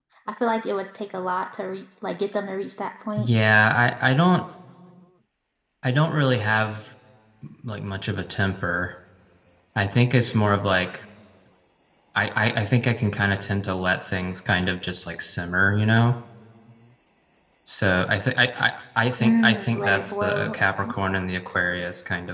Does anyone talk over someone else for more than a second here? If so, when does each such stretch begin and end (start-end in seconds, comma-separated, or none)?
19.2-20.6